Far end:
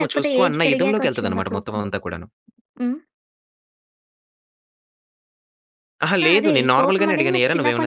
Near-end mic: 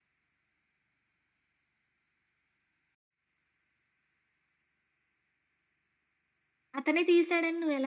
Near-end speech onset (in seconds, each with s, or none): 6.8 s